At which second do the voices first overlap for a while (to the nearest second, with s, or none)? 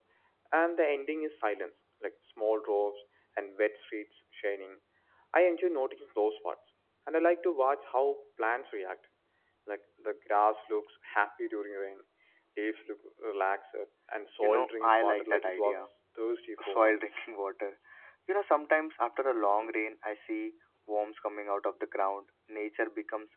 14 s